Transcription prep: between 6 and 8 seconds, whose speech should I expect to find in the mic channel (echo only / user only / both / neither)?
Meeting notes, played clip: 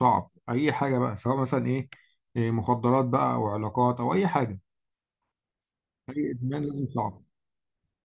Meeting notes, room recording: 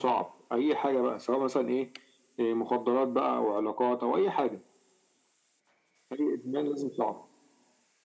echo only